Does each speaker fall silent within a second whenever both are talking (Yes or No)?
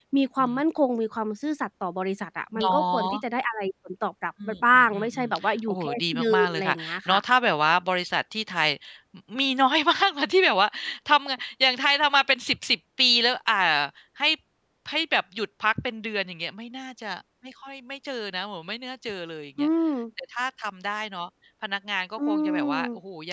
No